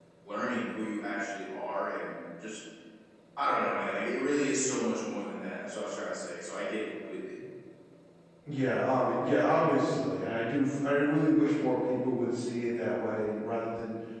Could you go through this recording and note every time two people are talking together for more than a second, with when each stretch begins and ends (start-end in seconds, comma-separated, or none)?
none